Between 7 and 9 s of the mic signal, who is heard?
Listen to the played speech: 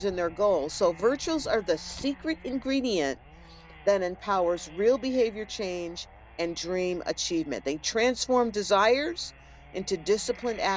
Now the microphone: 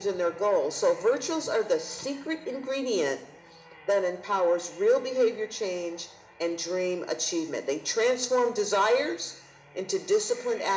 echo only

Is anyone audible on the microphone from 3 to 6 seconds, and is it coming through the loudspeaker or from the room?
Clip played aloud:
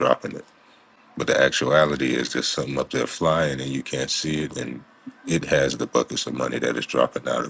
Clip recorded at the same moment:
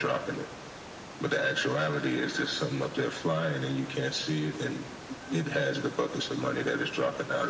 echo only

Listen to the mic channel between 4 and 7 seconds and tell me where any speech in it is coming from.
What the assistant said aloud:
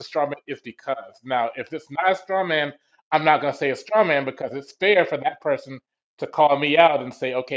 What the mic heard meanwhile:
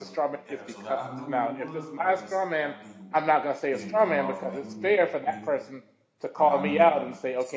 both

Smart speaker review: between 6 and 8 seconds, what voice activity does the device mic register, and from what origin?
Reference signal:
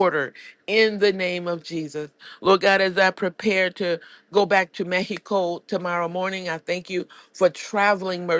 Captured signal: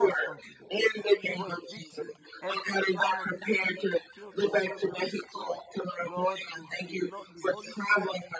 both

